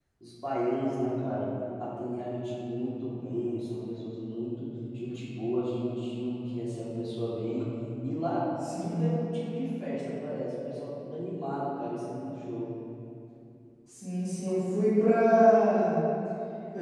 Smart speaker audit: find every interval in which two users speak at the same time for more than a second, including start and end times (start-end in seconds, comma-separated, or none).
none